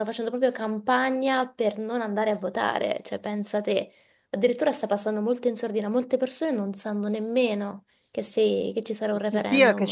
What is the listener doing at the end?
taking over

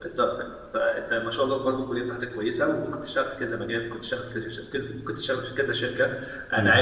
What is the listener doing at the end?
listening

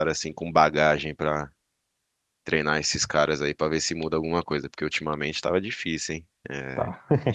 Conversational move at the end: listening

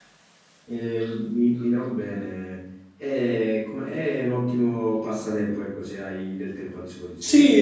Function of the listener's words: taking over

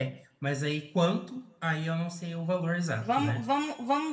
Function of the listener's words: taking over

